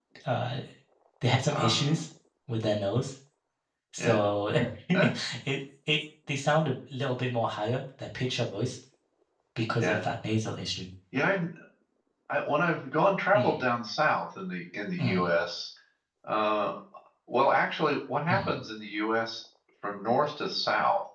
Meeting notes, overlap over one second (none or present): none